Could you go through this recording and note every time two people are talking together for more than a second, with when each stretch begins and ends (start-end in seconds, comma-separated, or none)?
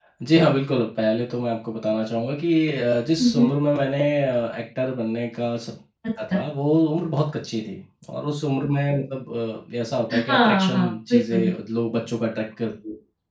10.1-11.5